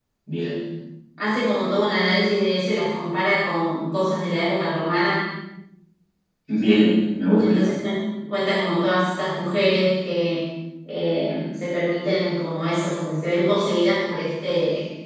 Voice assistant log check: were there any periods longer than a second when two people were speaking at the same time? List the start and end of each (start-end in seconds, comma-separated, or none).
none